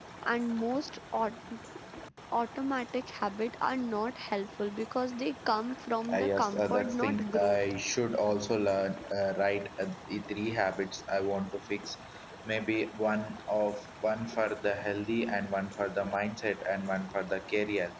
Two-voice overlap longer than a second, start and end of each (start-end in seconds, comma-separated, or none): 6.1-7.6